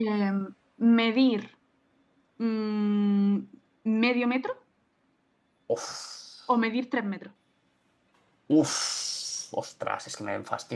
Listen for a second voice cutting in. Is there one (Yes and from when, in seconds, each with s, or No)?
No